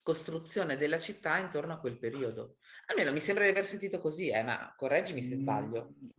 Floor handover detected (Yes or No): Yes